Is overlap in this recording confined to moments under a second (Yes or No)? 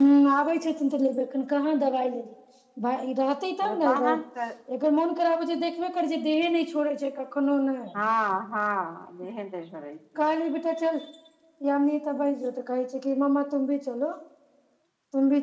Yes